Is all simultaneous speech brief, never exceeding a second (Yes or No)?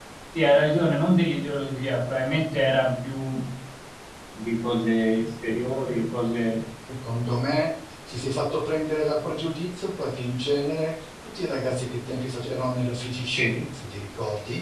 Yes